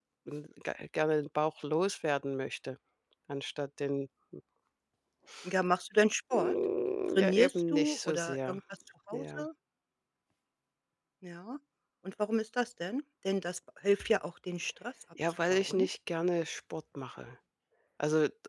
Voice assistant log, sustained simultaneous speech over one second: present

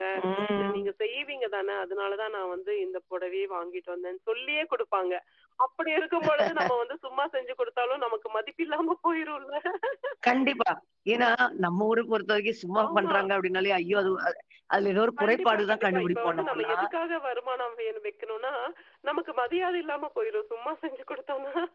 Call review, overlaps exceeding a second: present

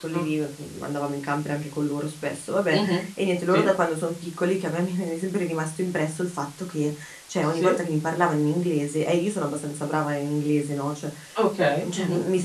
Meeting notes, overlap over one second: none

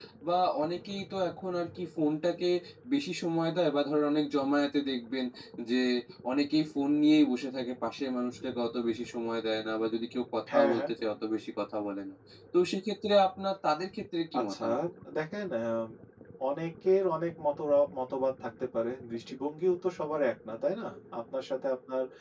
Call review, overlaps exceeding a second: none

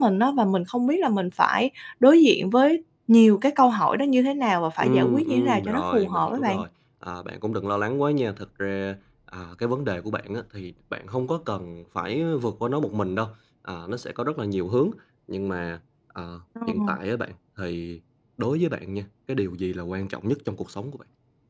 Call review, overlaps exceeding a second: present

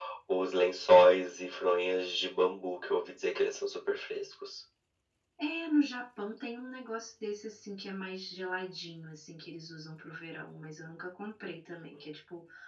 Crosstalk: none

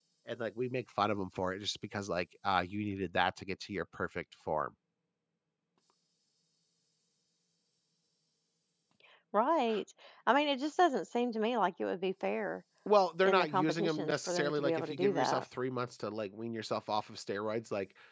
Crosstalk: present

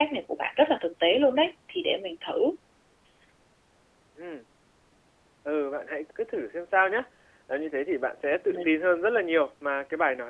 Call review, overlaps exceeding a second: none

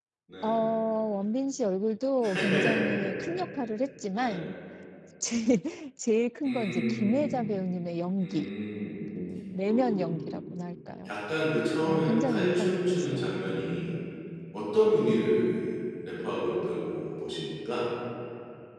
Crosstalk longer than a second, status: present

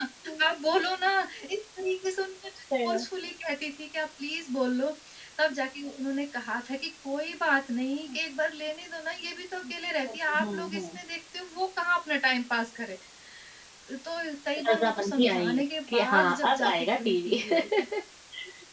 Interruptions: present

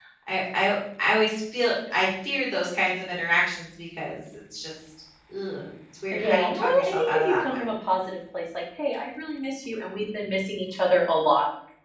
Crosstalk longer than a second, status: present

